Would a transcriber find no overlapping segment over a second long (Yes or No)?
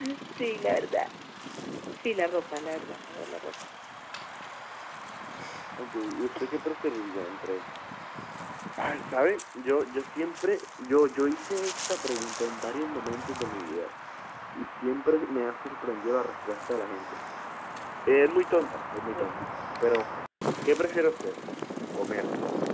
Yes